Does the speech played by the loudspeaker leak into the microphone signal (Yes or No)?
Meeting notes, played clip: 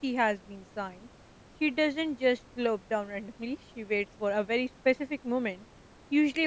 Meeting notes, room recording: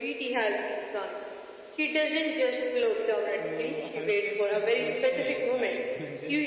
Yes